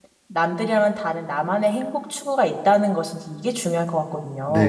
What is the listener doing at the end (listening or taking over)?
taking over